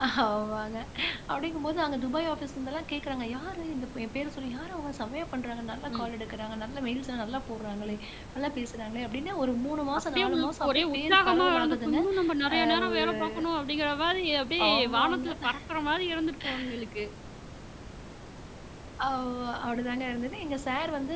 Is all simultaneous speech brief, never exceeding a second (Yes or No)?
No